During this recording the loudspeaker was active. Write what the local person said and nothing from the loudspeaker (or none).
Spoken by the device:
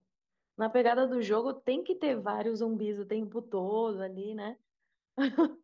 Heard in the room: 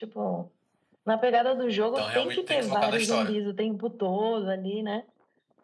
Então realmente tem que focar na história.